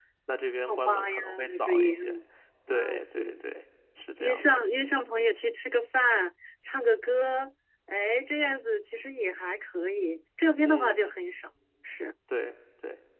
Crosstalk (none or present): present